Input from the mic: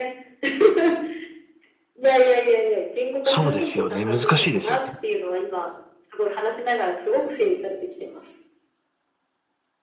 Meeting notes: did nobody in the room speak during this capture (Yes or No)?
No